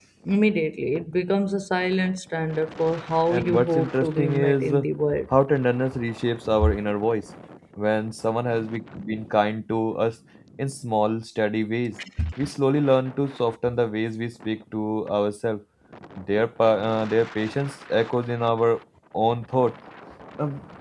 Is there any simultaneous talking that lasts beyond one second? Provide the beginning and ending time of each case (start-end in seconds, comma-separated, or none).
3.3-4.7